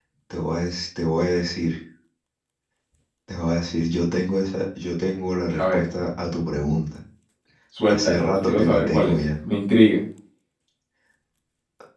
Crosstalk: present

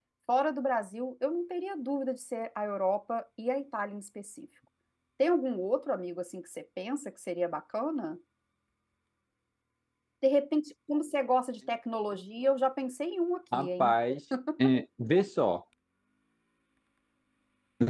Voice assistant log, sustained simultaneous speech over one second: none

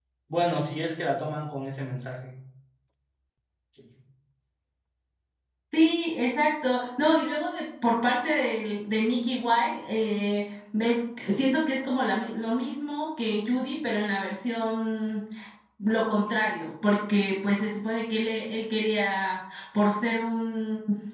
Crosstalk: none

